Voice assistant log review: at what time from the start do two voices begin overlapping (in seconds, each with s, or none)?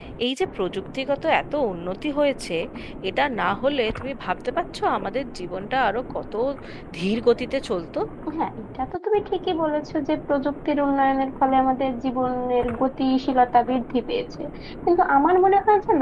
none